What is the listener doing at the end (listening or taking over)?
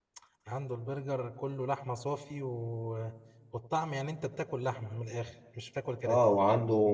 taking over